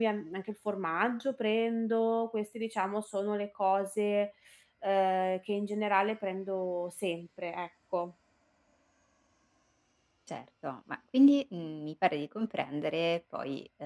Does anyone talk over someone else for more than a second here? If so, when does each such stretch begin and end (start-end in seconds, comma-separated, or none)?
none